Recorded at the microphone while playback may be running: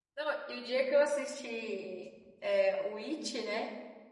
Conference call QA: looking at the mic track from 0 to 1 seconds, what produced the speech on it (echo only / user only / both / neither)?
user only